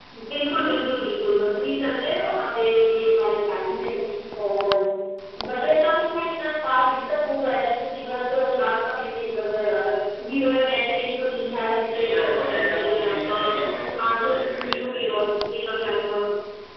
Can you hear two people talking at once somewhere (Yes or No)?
Yes